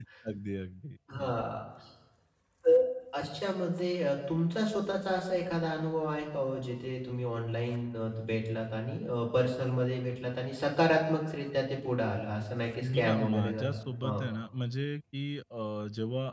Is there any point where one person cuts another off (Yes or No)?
Yes